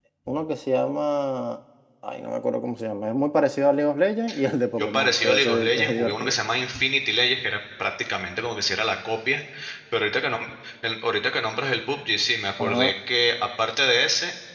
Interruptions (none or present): present